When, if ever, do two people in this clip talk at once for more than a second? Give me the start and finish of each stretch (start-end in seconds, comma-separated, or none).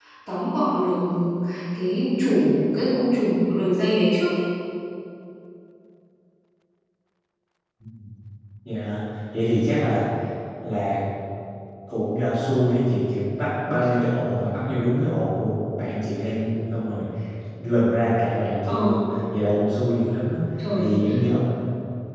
none